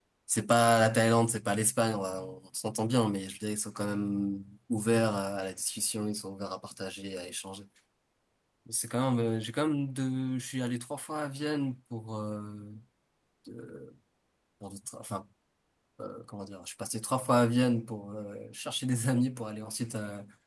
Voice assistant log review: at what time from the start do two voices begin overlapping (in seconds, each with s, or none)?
none